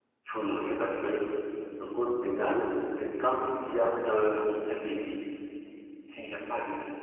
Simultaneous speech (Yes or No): No